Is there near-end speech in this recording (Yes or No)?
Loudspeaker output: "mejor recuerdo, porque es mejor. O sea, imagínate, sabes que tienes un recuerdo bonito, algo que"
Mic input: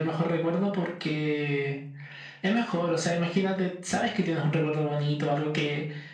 No